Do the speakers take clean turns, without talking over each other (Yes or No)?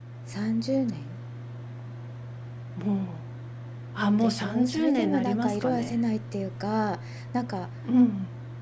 No